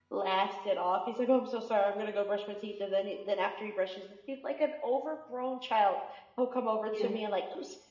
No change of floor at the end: Yes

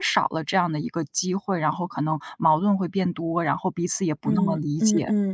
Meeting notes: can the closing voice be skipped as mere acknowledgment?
No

